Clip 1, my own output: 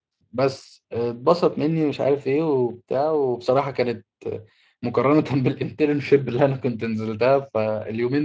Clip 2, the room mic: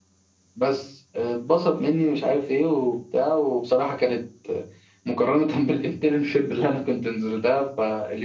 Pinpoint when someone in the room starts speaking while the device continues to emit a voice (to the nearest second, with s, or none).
none